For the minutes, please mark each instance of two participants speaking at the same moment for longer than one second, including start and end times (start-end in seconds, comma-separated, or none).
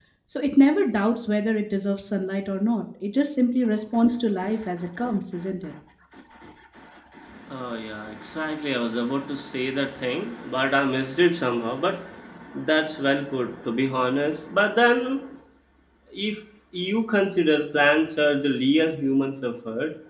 none